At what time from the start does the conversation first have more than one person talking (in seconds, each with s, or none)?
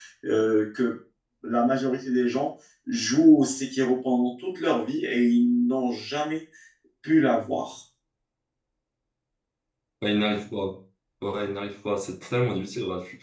none